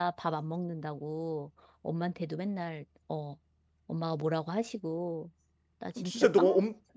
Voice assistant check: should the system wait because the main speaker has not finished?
No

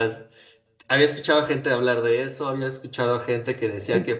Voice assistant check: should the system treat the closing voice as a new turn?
No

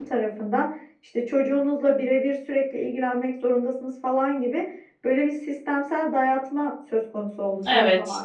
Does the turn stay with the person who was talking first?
Yes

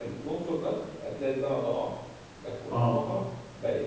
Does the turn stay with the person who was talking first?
Yes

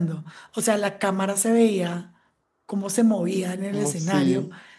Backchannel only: Yes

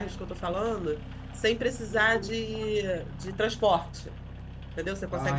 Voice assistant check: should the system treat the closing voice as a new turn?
No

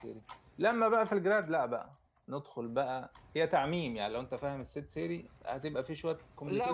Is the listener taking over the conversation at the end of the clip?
Yes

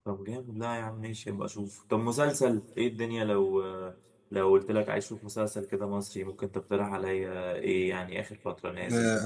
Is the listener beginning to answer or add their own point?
Yes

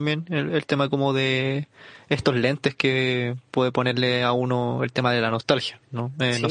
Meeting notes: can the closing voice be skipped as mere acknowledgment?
No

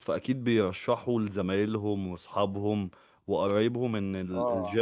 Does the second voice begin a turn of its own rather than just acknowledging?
No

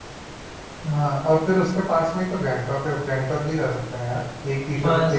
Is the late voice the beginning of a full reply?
Yes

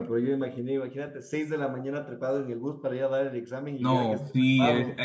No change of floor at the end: No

